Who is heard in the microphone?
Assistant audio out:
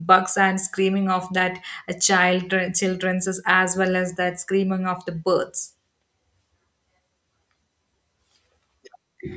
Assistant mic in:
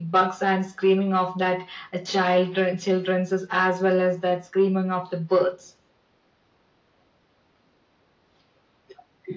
echo only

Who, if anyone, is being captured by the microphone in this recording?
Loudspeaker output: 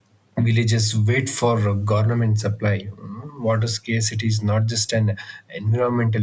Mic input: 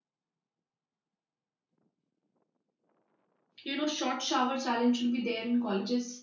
user only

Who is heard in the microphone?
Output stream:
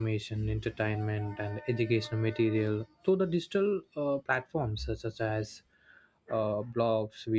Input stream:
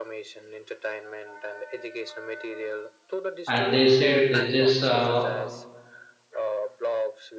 both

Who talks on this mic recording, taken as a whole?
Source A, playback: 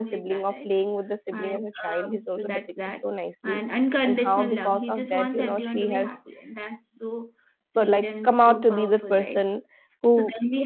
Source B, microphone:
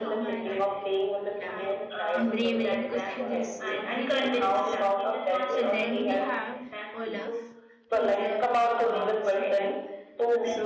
both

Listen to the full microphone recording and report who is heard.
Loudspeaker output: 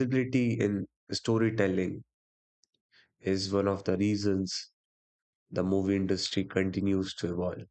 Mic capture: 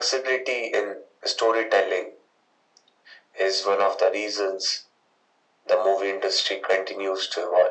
echo only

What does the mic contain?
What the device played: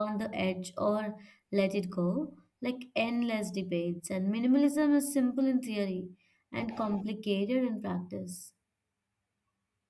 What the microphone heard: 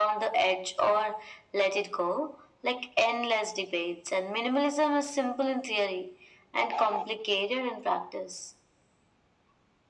echo only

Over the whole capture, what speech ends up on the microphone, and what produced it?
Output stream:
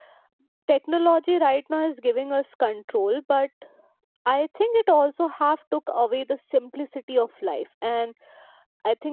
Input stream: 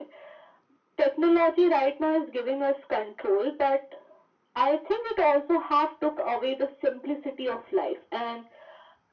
echo only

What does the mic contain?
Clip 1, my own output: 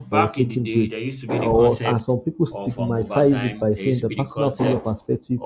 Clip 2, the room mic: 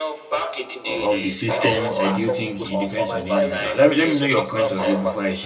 both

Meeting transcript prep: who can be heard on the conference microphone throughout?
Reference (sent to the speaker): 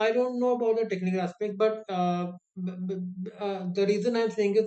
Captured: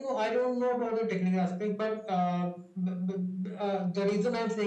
echo only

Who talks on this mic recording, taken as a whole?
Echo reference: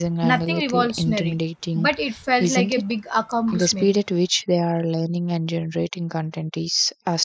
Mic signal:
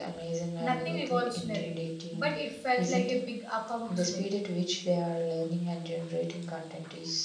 echo only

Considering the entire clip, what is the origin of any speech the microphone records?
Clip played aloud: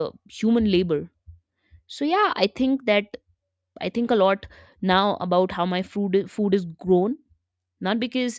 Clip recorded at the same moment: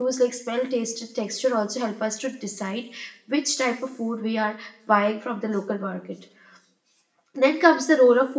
user only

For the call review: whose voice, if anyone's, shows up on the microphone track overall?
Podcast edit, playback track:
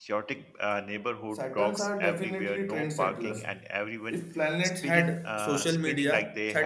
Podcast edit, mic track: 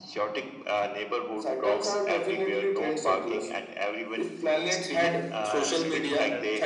both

